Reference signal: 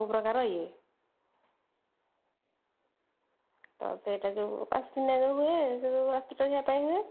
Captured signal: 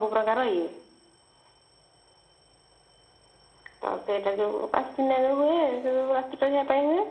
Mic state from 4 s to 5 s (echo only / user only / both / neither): echo only